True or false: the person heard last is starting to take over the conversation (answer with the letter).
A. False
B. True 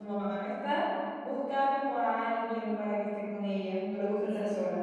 B